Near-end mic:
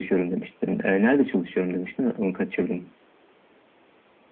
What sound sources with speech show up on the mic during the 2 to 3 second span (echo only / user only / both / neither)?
echo only